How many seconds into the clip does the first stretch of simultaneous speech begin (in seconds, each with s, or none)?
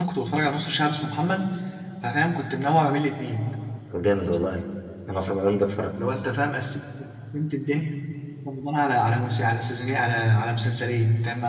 none